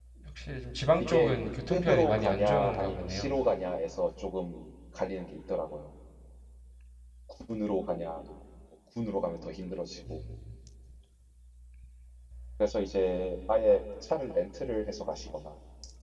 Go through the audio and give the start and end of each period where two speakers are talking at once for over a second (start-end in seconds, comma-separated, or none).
1.7-3.3